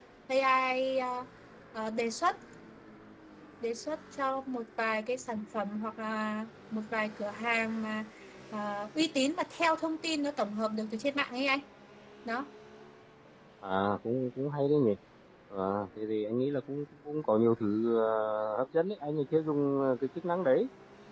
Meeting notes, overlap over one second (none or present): none